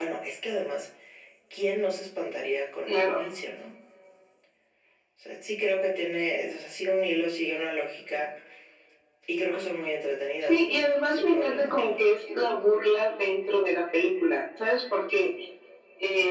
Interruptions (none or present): present